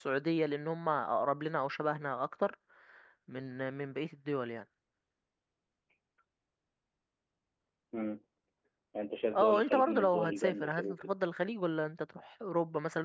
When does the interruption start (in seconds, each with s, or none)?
9.3 s